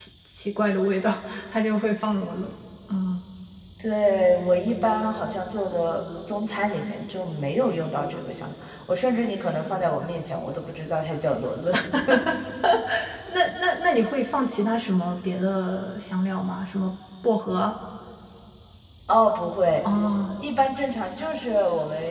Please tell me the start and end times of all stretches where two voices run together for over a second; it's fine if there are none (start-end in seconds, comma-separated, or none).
none